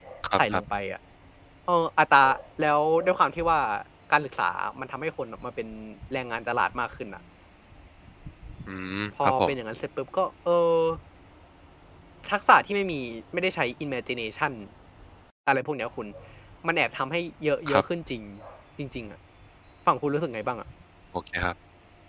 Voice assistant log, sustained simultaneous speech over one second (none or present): none